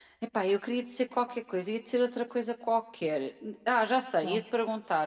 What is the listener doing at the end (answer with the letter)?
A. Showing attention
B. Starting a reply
A